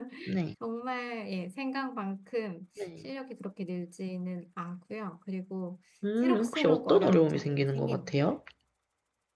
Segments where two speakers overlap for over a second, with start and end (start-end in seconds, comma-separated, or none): 6.2-8.1